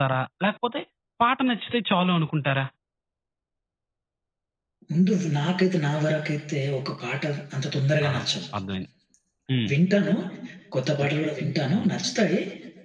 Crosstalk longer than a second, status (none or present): none